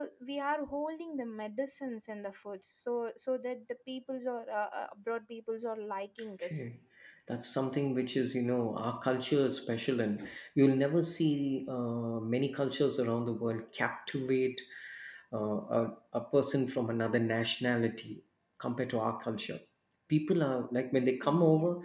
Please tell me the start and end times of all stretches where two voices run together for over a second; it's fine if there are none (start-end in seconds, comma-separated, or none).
none